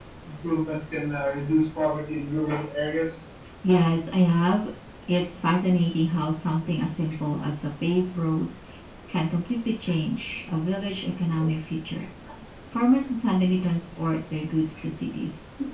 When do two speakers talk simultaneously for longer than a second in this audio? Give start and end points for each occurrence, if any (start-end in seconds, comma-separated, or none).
none